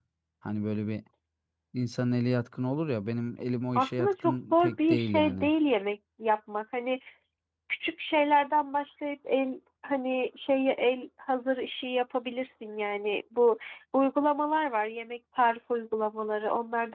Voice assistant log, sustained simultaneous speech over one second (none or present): present